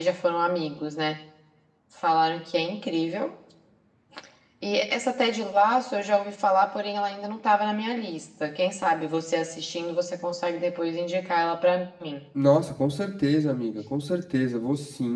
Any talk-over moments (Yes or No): No